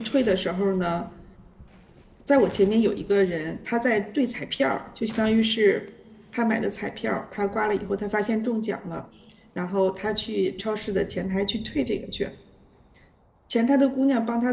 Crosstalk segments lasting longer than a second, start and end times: none

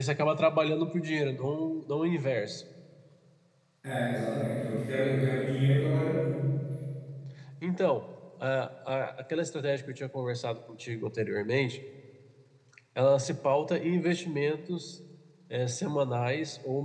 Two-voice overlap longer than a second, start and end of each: none

